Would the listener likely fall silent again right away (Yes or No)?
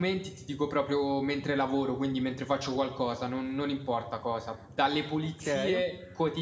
Yes